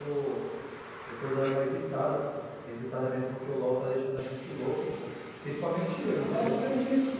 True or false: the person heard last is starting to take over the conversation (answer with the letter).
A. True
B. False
A